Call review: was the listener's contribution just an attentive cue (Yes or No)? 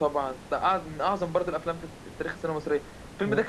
Yes